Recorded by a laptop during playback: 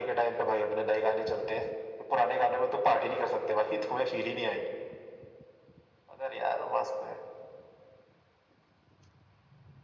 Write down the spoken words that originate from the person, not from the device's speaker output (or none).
none